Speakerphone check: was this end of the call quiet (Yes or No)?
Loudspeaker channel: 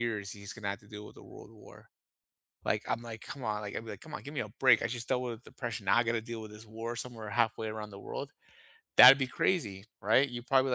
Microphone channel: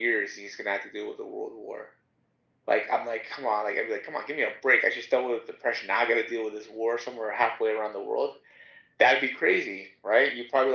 Yes